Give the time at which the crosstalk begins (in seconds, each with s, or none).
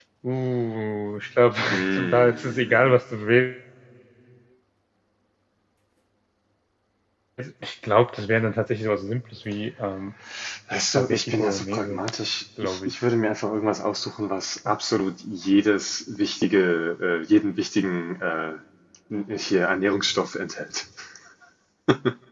1.7 s